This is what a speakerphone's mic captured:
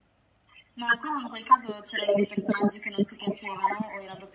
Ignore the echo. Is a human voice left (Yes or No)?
No